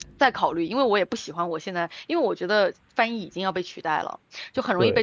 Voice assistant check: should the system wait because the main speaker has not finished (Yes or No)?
Yes